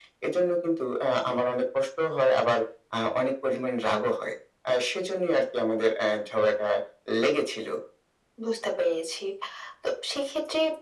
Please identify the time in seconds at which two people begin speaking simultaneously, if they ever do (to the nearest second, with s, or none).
none